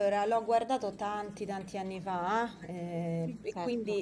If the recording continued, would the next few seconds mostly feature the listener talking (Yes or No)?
No